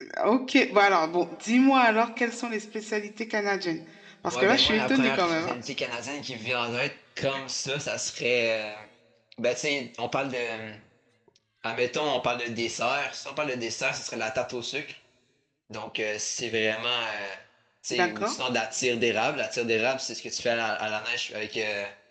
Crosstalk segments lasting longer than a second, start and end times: 4.3-5.5

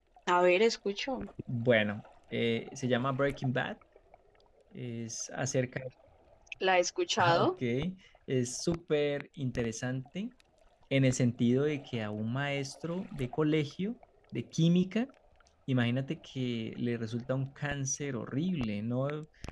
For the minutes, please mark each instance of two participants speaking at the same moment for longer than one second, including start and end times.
none

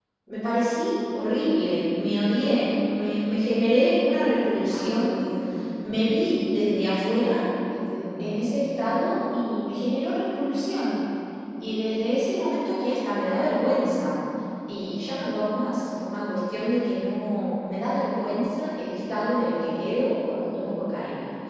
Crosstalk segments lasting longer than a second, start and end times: none

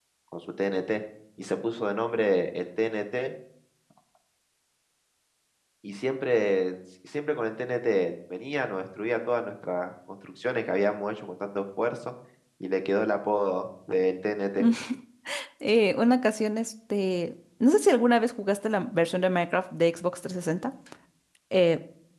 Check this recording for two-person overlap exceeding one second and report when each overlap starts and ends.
none

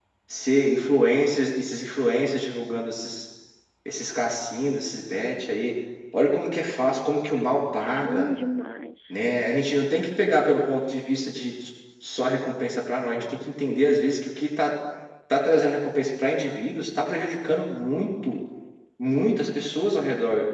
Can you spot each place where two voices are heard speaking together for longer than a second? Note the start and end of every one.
none

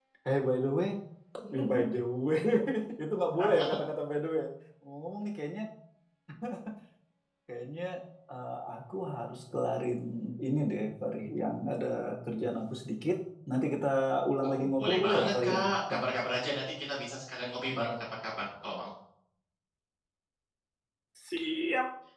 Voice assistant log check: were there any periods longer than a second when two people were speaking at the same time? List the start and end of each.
14.4-16.0

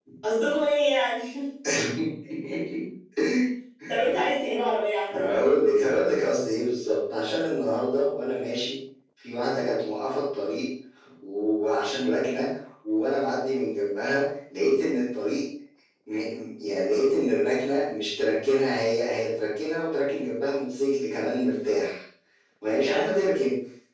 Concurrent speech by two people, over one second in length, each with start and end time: none

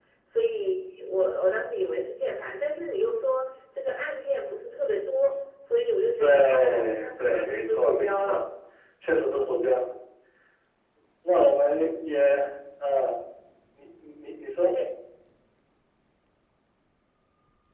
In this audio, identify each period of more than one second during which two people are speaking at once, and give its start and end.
6.2-8.4

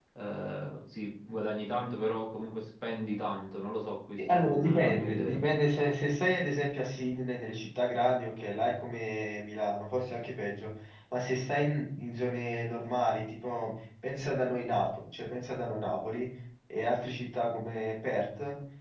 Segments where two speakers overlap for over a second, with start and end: 4.2-5.4

